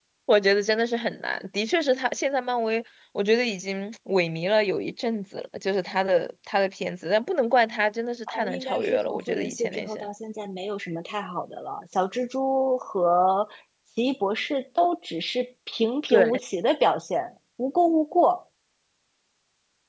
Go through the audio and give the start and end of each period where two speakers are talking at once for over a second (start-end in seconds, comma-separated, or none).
8.3-10.1